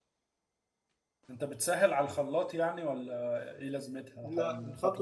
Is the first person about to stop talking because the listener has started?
Yes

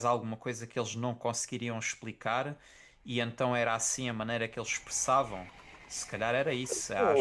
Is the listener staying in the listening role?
No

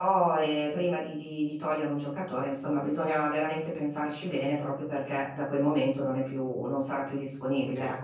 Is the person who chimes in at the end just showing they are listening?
No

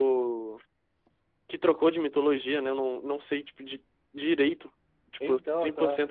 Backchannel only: Yes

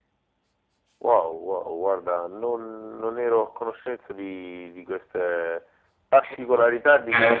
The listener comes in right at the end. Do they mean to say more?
Yes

